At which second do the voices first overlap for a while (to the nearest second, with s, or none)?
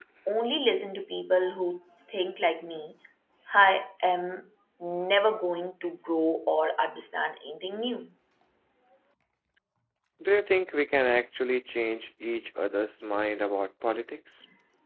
none